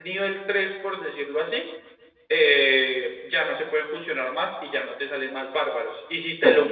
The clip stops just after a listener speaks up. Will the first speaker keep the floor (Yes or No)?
Yes